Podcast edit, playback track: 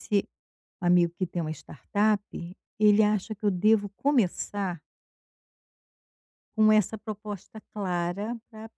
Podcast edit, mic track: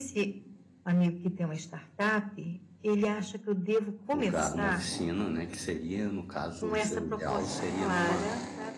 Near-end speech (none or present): present